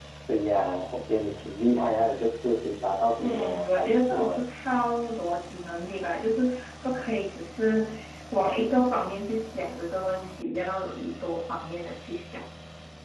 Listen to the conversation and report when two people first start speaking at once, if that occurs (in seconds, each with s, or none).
3.2 s